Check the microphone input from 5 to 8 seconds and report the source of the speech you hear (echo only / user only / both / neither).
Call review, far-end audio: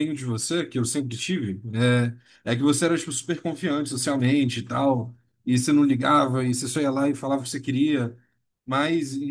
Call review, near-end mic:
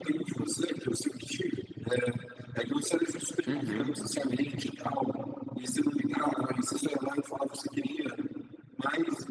echo only